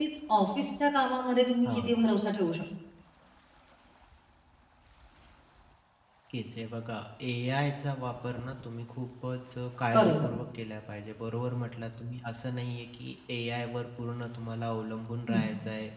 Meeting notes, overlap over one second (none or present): none